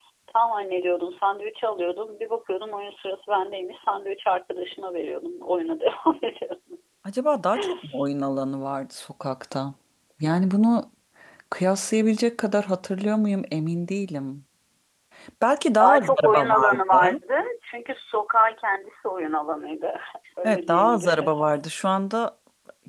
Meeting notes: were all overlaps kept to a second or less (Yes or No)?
No